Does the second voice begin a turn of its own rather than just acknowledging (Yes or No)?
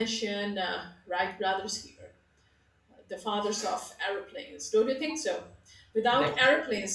No